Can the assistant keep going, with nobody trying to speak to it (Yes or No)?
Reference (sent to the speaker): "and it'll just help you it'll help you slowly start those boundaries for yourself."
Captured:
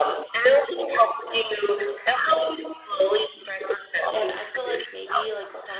No